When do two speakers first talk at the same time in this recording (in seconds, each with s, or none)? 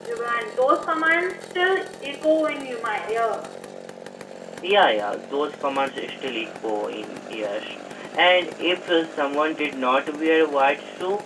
none